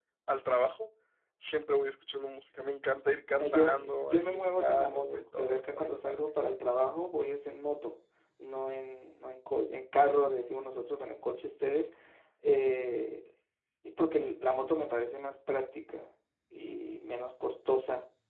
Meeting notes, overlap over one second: present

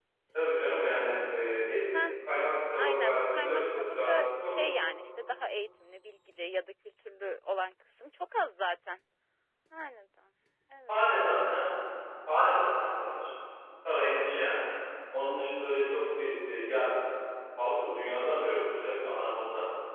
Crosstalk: present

